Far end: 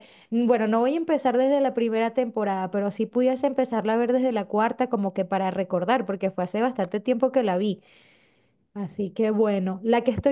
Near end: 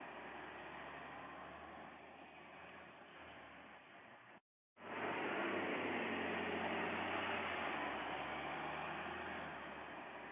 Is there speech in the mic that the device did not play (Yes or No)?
No